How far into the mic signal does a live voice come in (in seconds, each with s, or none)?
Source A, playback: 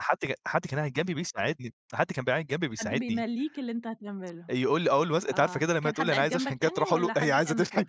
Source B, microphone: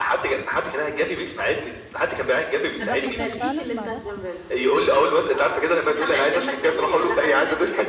2.6 s